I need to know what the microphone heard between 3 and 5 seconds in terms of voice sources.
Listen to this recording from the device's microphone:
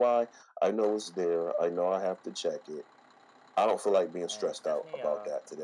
both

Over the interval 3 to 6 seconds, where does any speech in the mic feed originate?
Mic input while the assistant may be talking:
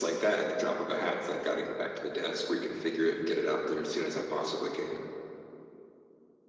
echo only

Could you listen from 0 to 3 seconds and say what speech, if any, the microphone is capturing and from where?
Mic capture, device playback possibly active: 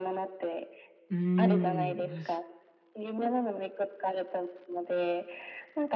both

